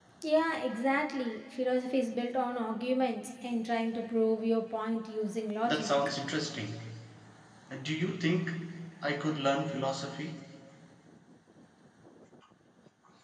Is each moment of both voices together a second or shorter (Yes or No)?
Yes